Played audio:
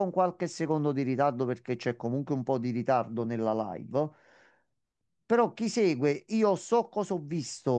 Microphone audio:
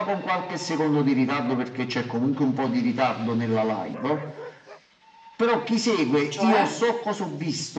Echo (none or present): present